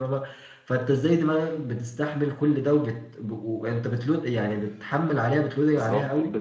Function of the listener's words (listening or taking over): taking over